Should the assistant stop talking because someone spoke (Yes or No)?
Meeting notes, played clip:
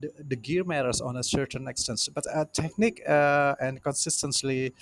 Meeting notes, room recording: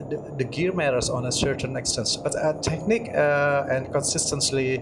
No